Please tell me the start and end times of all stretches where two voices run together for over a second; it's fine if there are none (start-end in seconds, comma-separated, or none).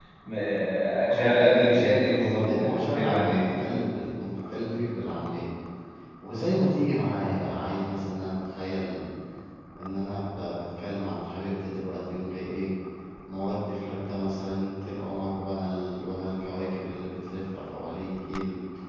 1.1-3.5